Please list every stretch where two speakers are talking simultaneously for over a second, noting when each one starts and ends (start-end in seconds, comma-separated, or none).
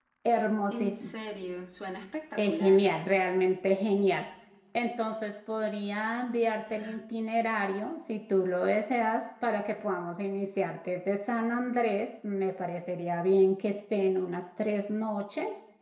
none